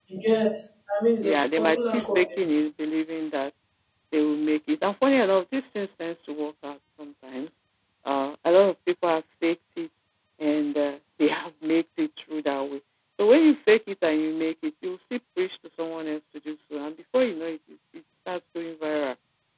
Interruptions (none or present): present